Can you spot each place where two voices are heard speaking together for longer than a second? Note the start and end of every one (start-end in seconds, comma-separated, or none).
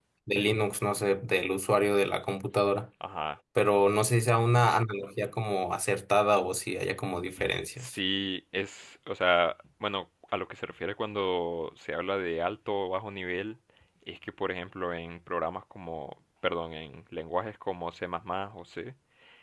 none